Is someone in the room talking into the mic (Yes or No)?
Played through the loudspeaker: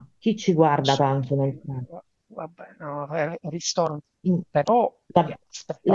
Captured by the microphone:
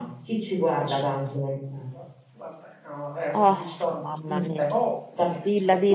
Yes